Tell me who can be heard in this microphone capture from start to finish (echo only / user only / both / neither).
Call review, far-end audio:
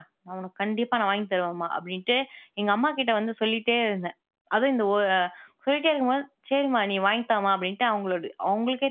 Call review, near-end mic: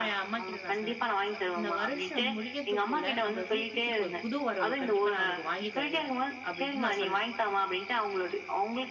both